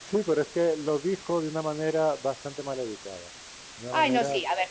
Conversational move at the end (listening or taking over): taking over